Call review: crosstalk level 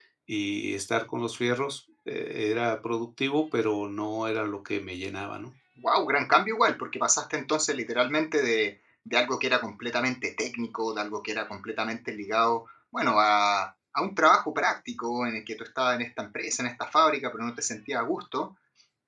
none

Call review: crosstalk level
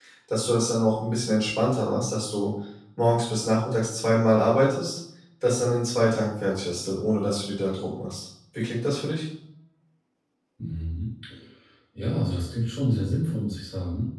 none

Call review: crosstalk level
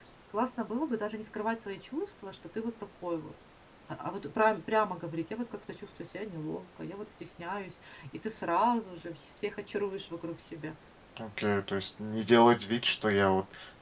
none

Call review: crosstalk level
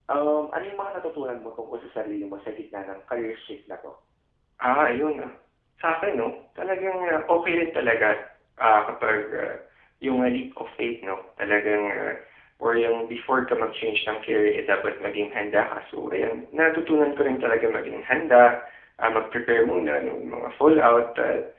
none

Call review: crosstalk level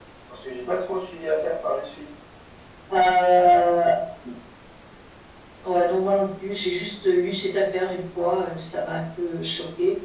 none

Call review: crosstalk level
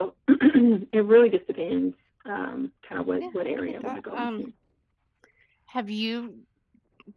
present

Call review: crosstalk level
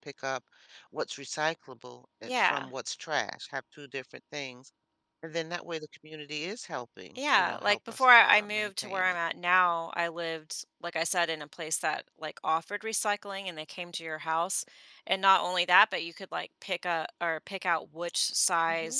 present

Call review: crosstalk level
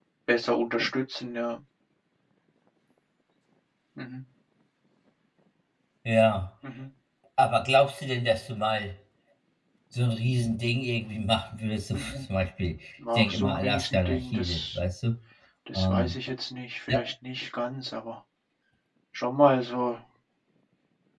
present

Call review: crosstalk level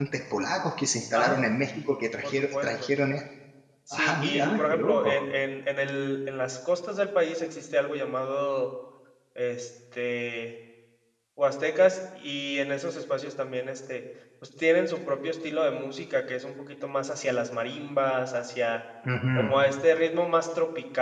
present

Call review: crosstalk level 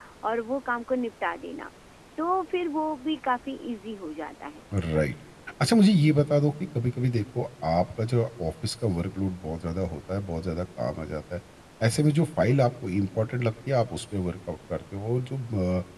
none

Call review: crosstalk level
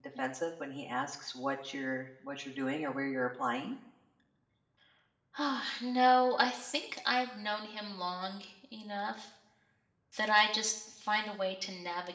none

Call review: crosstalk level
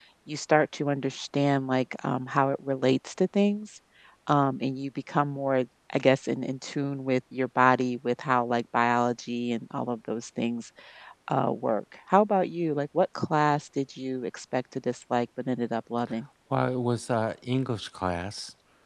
none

